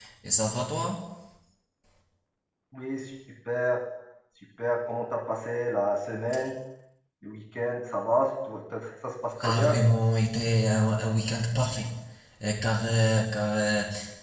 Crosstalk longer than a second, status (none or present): none